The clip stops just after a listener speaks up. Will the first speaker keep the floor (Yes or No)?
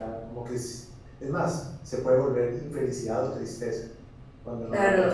No